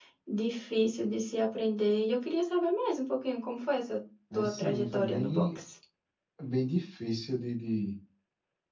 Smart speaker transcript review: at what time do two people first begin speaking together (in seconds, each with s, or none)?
4.3 s